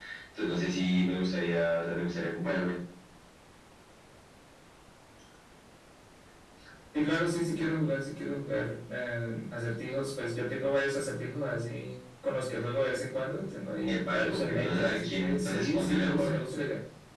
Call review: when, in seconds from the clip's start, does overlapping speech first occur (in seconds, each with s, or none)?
13.8 s